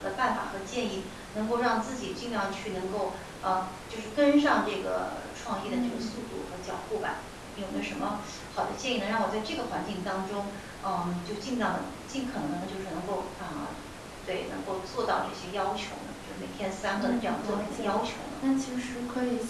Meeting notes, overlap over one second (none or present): present